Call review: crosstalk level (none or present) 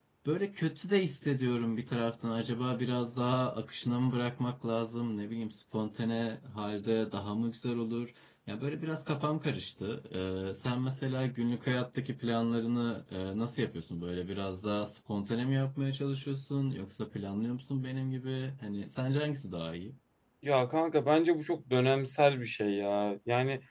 none